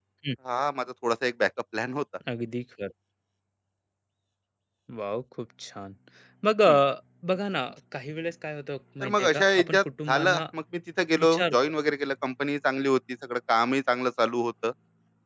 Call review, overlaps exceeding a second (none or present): present